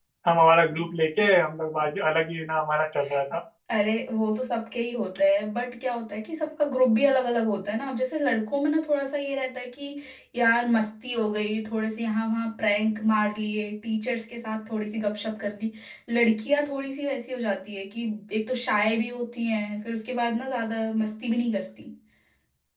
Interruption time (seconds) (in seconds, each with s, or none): none